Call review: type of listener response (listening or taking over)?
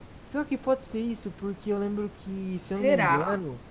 listening